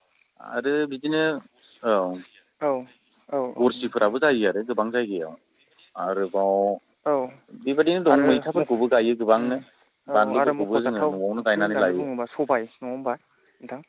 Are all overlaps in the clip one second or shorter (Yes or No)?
No